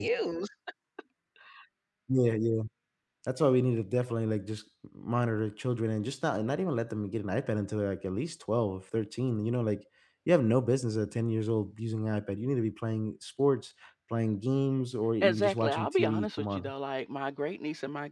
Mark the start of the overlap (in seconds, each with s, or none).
15.2 s